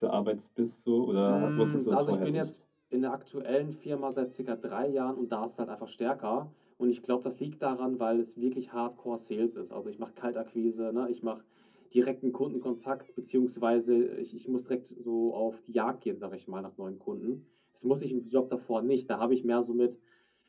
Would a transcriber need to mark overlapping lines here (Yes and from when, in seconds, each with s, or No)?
Yes, from 1.2 s